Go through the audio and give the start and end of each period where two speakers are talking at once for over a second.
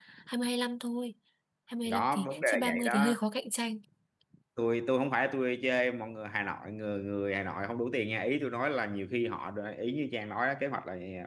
1.9-3.1

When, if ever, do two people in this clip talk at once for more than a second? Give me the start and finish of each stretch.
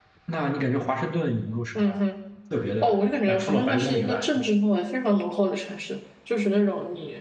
2.8-4.2

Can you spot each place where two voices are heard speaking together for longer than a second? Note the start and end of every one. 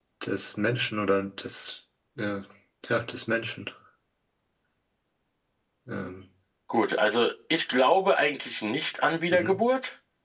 none

